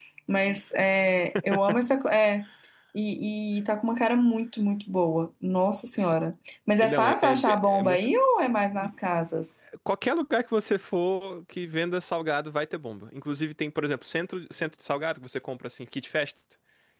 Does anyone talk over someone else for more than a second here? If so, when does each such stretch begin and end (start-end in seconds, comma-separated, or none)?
6.8-8.1